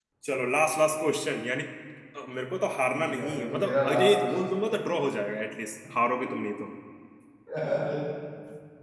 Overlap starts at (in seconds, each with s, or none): 2.9 s